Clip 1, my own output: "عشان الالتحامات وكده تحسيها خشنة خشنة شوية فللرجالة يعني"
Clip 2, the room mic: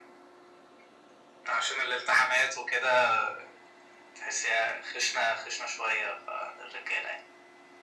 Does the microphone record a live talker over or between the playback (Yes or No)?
No